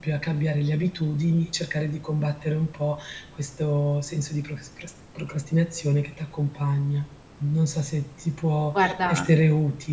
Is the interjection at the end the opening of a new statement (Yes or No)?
No